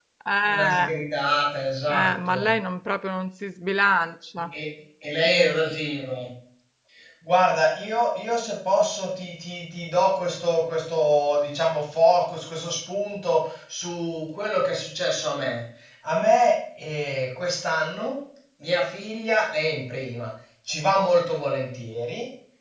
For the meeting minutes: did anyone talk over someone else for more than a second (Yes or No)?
No